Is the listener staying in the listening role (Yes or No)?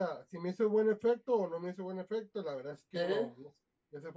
Yes